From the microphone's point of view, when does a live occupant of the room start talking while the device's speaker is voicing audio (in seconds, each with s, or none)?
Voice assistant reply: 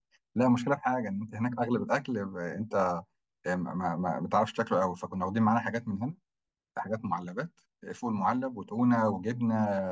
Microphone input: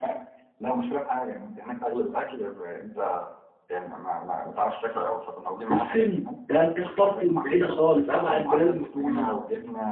5.7 s